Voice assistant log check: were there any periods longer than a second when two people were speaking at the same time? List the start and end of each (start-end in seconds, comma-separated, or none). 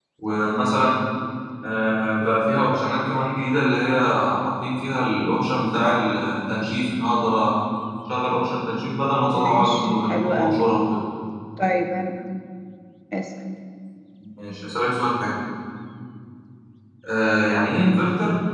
9.3-10.6